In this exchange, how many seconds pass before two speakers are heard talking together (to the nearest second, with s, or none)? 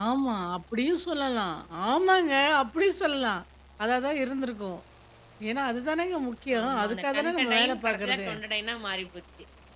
7 s